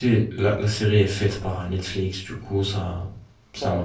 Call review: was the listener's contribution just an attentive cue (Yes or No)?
No